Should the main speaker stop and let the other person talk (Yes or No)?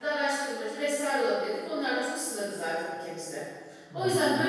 No